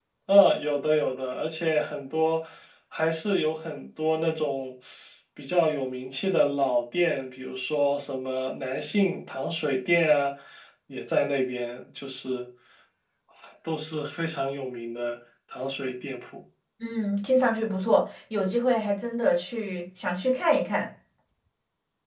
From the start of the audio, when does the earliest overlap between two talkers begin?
none

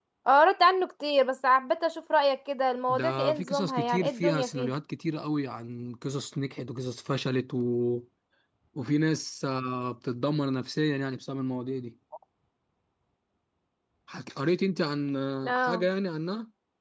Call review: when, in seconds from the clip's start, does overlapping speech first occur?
2.9 s

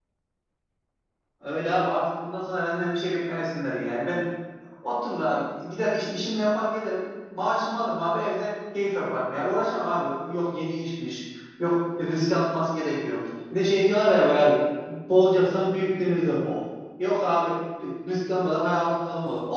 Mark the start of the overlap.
none

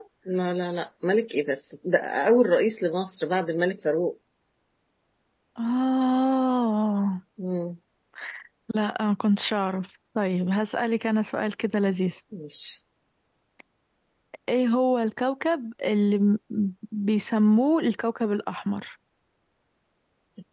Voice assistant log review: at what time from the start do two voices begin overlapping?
none

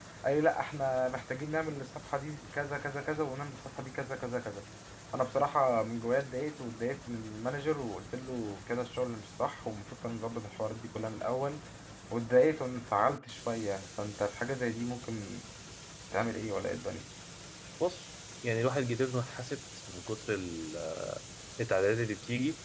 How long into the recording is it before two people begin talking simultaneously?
none

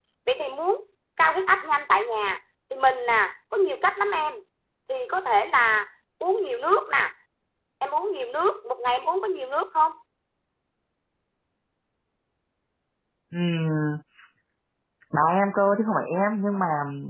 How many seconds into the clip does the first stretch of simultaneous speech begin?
none

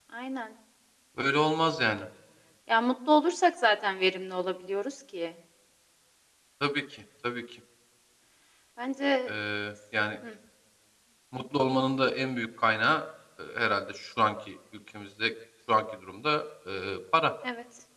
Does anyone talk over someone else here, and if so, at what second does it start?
none

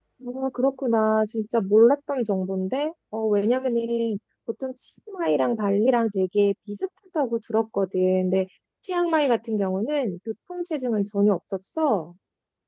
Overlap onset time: none

